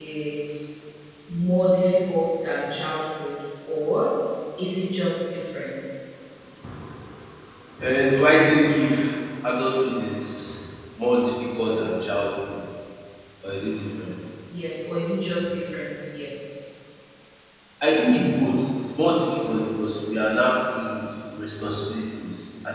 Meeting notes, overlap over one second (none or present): none